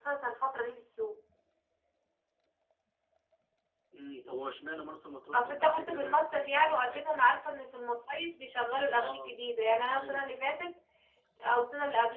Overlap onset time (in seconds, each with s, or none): 5.3 s